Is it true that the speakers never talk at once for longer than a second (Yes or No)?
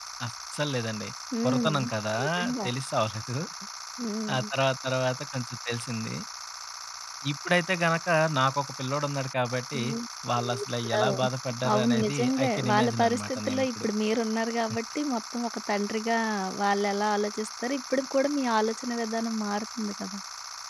No